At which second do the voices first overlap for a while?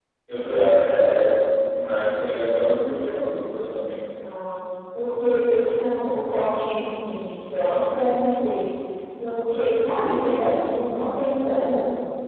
none

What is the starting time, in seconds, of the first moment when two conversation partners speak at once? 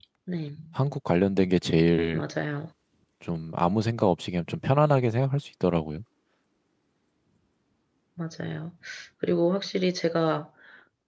none

